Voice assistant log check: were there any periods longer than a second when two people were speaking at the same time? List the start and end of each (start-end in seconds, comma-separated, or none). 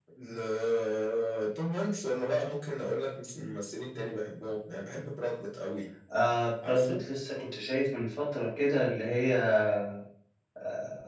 none